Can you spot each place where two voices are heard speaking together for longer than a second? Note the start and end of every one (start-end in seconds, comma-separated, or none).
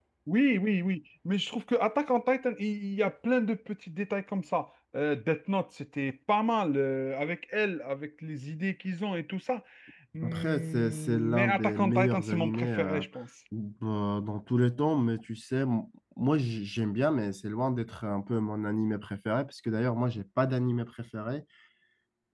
10.2-13.0